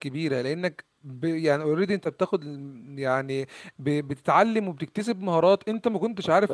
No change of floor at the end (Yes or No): Yes